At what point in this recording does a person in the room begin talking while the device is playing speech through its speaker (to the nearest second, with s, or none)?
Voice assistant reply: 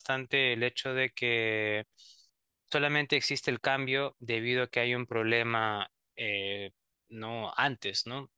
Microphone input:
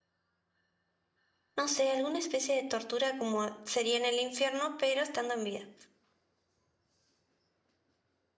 2 s